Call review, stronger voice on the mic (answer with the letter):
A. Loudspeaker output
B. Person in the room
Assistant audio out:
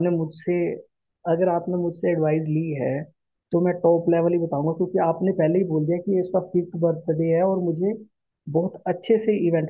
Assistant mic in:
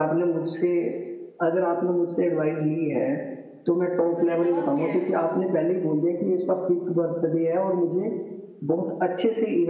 A